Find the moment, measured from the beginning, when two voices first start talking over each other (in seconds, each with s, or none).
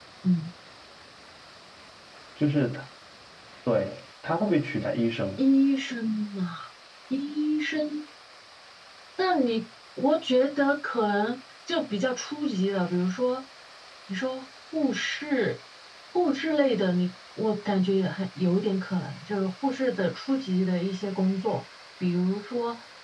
none